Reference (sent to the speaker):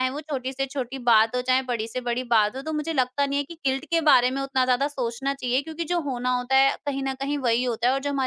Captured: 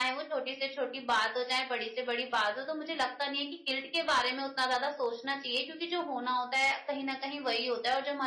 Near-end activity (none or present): none